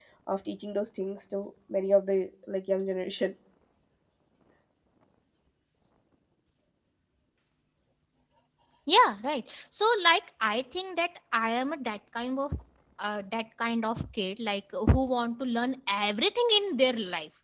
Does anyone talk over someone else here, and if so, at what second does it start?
none

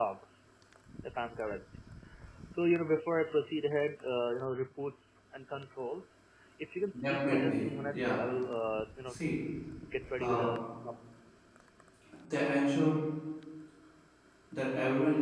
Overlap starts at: 7.0 s

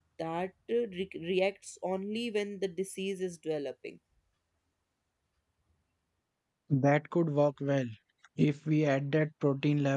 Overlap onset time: none

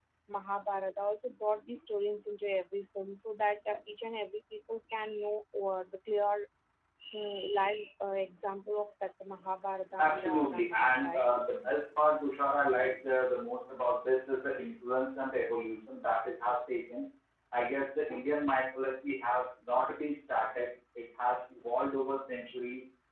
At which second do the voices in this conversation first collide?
10.0 s

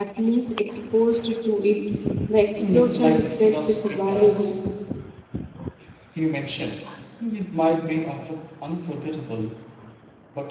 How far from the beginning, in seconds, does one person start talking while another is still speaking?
2.7 s

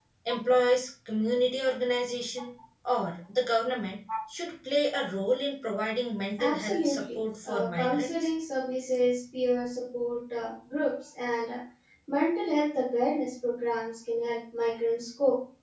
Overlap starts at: 6.4 s

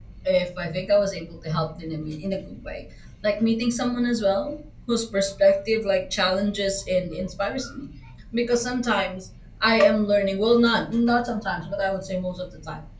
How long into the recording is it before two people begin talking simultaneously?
none

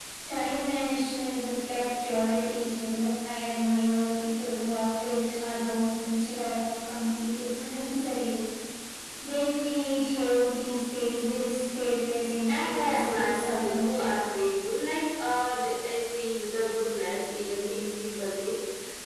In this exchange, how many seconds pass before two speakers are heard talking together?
12.5 s

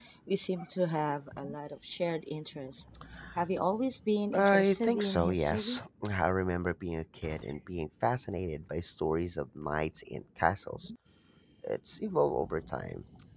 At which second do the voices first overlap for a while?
4.3 s

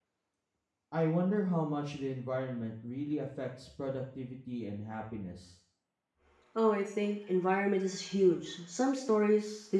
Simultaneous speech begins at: none

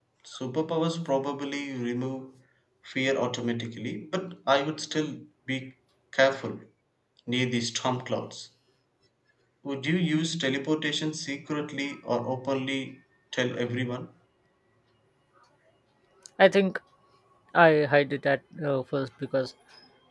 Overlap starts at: none

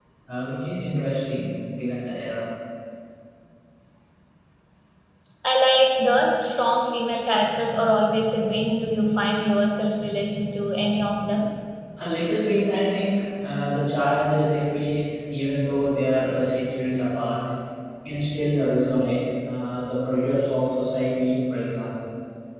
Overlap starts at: none

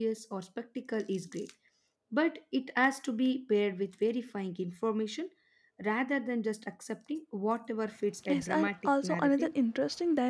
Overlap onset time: 8.2 s

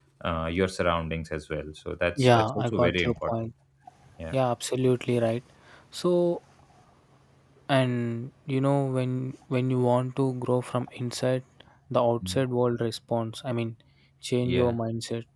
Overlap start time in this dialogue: 2.2 s

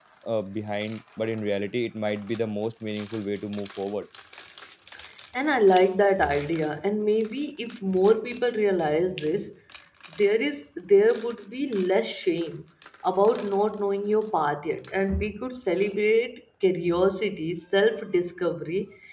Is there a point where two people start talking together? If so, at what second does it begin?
none

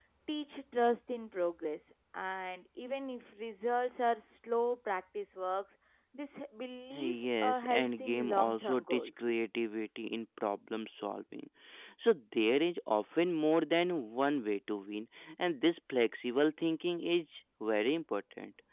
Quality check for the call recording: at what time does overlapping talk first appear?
6.8 s

